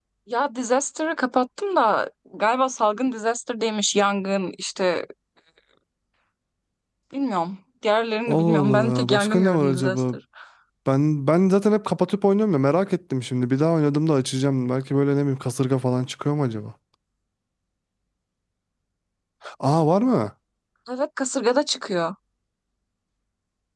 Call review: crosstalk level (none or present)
present